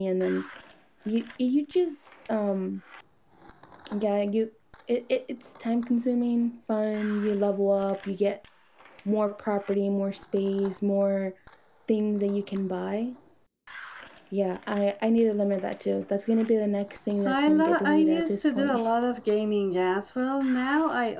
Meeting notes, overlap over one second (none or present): present